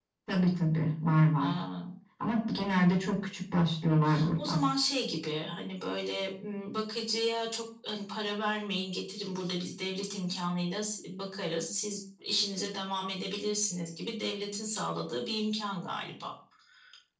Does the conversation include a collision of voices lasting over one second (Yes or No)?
No